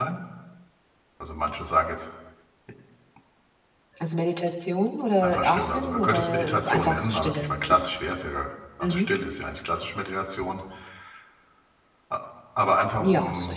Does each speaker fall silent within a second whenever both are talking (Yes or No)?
No